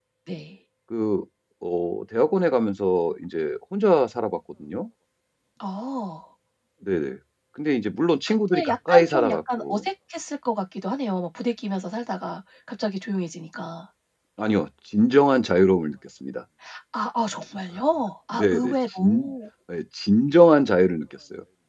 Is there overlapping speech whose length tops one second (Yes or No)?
Yes